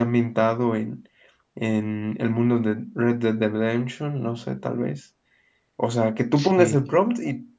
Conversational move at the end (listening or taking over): listening